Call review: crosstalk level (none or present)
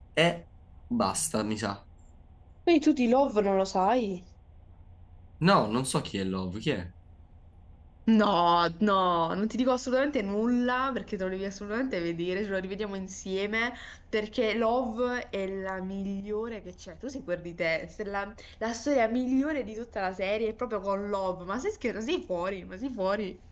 none